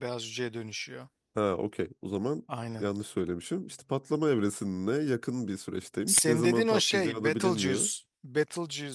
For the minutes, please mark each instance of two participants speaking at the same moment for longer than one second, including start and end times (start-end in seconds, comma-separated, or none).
6.1-7.9